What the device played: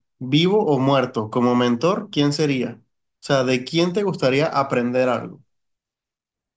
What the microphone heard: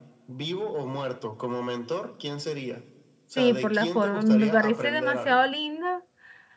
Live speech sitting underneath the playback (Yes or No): No